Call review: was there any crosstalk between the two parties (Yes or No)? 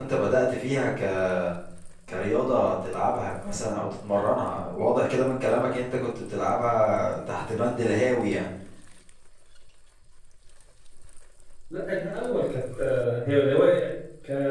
No